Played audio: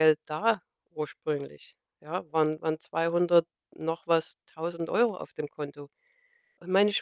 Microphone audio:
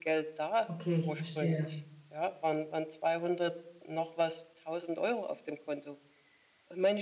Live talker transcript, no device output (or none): Okay, ich verstehe.